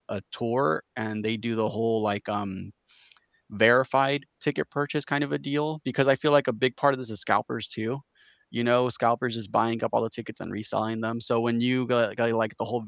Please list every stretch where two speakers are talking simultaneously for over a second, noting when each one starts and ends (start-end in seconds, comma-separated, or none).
none